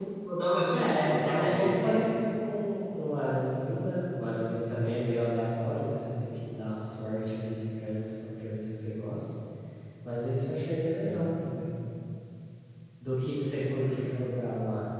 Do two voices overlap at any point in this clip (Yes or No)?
Yes